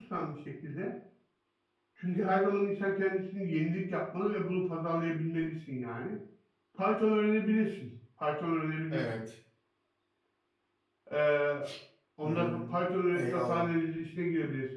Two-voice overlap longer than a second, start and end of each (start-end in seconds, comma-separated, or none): 12.2-13.7